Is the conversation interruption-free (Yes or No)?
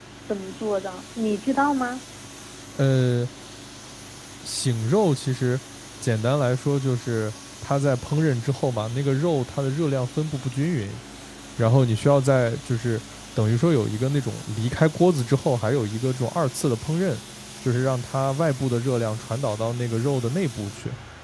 Yes